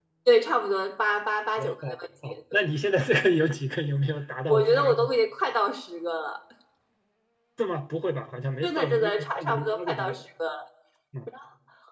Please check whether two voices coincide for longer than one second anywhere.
Yes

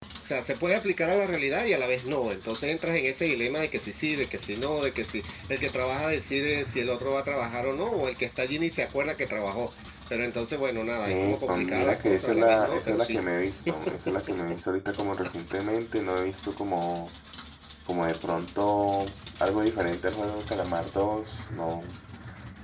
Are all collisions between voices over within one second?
No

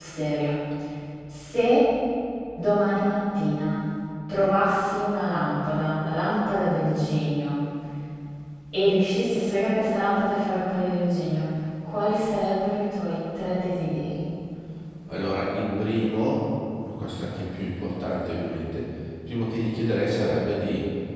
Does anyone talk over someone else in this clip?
No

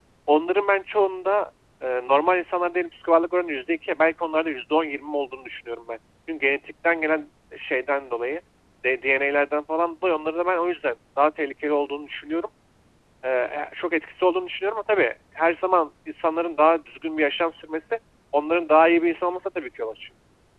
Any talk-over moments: No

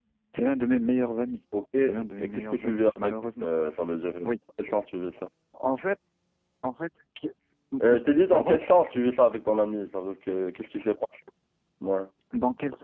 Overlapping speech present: Yes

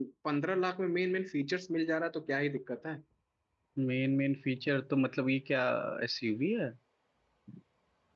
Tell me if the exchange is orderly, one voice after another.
Yes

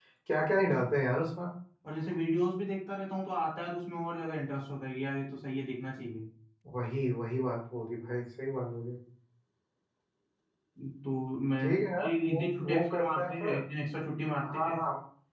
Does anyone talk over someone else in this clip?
Yes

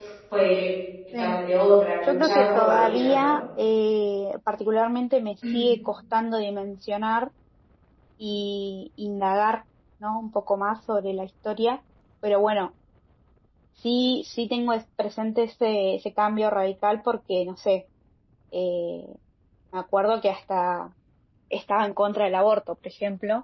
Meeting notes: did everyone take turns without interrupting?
No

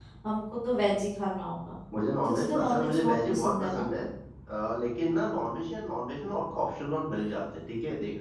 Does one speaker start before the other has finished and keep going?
Yes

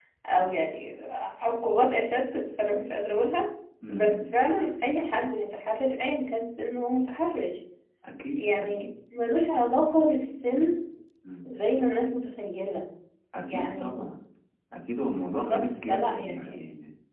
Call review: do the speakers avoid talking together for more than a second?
No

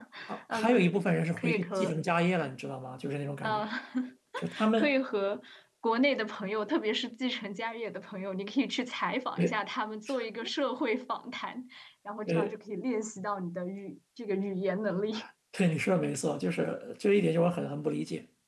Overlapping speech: Yes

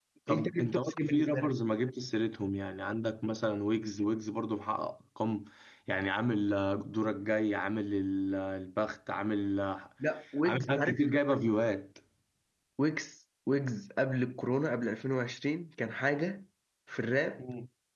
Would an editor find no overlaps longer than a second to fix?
No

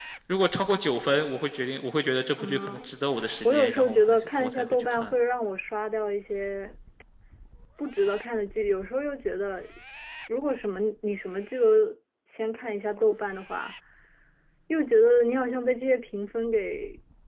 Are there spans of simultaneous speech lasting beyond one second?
Yes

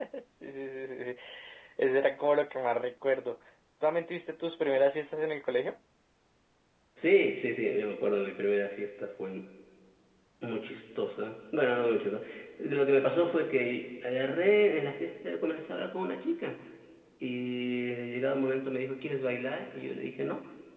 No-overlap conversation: Yes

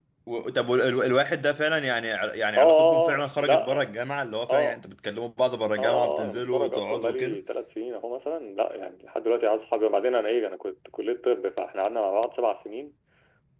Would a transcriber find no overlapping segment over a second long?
No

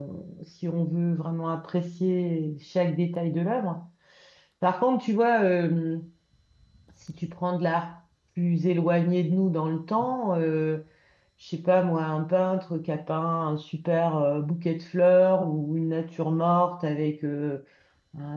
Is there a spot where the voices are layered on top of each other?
No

